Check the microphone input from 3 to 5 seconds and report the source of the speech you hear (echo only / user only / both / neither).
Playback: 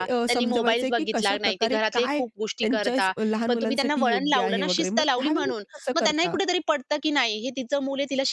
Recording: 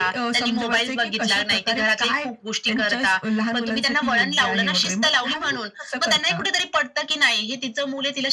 echo only